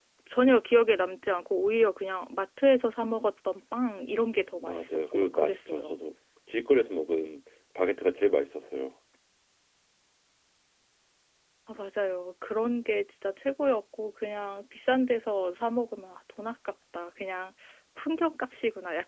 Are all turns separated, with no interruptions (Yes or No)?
No